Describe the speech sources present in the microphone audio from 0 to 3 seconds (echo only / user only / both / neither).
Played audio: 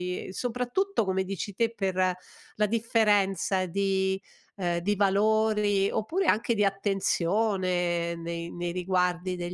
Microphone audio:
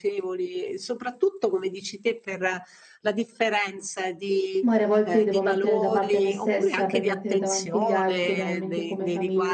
echo only